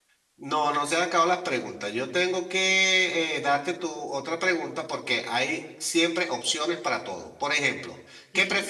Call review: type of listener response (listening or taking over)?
listening